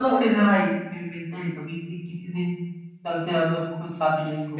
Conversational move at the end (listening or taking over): taking over